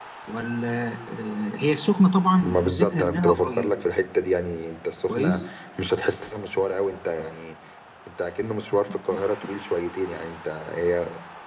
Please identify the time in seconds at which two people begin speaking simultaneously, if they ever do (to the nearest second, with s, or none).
2 s